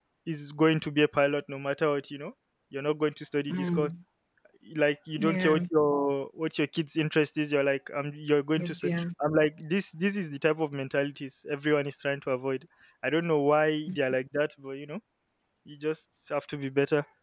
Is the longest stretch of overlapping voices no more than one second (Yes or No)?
Yes